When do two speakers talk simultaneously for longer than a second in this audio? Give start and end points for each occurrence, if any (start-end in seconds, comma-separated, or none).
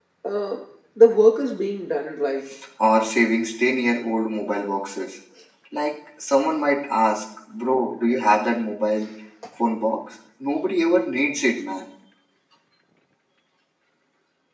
none